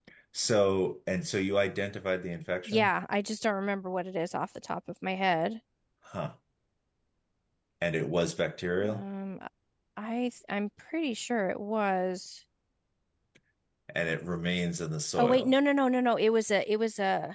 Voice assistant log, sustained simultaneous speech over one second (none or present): none